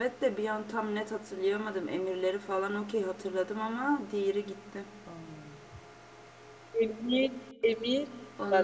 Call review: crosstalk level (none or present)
none